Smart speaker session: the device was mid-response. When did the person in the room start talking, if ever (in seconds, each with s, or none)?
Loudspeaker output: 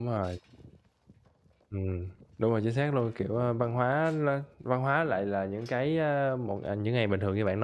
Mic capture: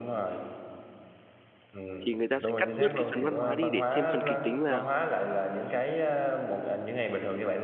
2.1 s